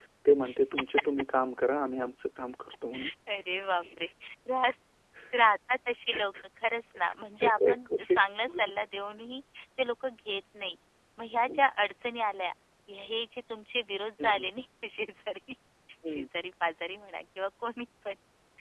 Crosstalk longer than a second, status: present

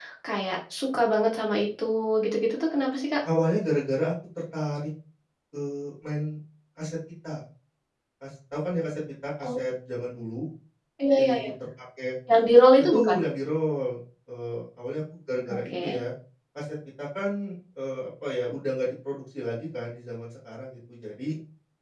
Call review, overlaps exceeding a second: none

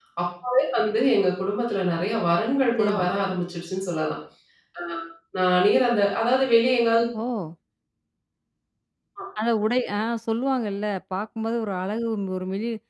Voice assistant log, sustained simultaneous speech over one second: none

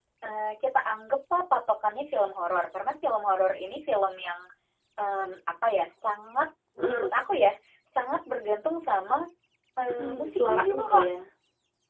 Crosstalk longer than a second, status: present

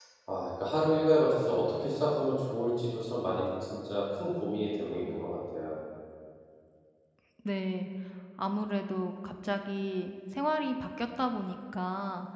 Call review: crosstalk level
none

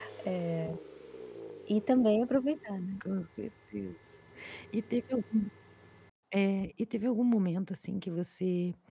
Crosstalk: none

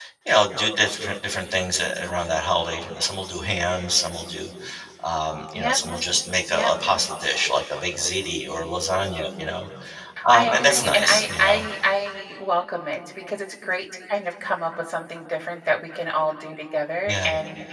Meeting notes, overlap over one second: present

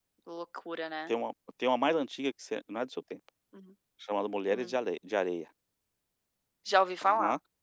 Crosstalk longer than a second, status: none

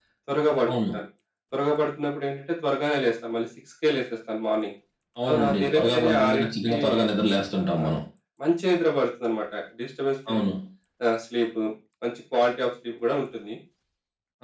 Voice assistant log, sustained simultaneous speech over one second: present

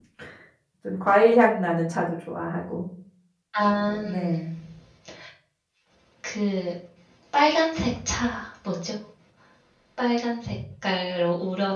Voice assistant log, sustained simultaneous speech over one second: none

